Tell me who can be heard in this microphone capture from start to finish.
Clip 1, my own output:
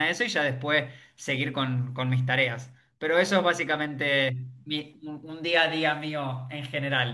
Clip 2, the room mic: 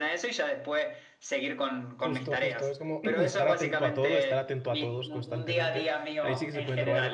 both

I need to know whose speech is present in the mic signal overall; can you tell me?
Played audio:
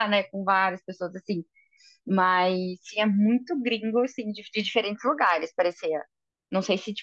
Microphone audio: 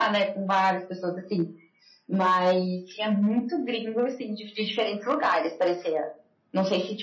echo only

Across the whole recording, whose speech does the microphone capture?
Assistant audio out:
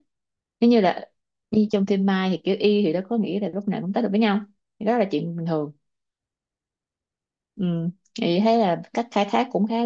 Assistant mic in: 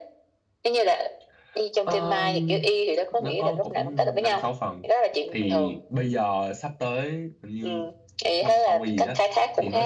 both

